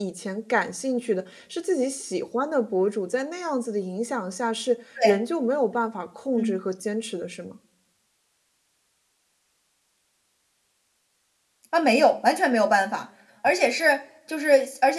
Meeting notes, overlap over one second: none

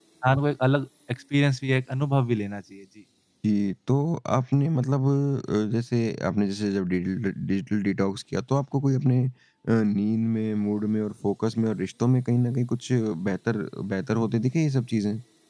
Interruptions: none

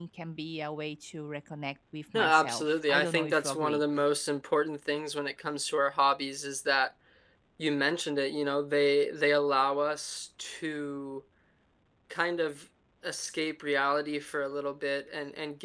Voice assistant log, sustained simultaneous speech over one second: present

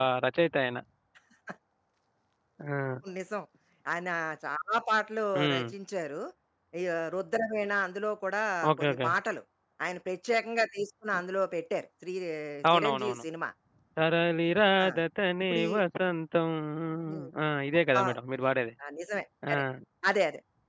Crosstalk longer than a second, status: none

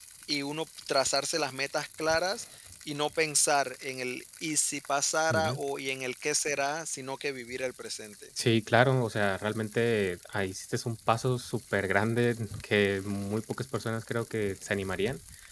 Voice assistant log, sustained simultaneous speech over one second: none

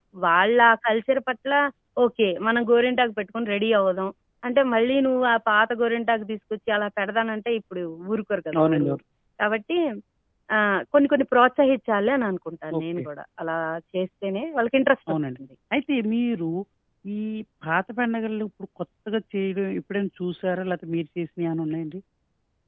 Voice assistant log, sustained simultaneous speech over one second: none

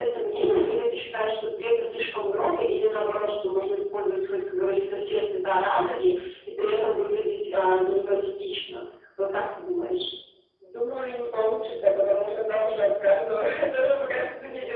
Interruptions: none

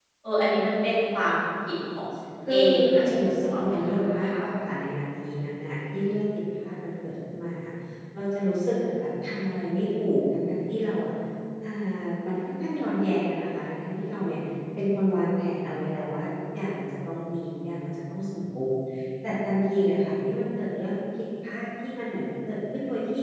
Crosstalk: present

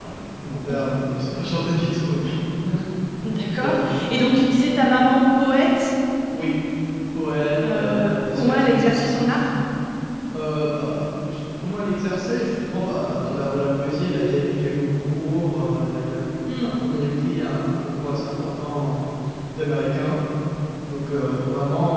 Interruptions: present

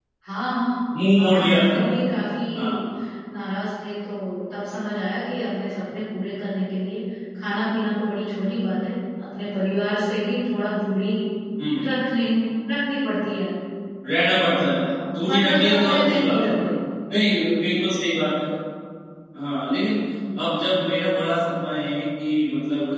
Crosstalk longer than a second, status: present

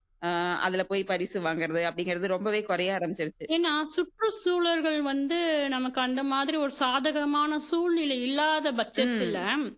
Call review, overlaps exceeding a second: none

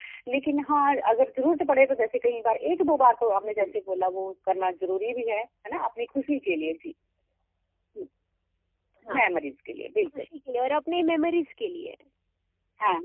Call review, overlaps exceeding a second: none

